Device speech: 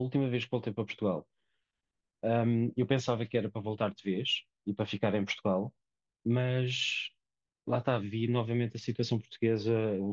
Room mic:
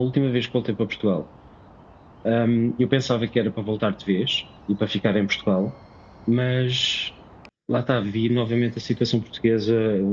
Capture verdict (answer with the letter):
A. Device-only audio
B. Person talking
A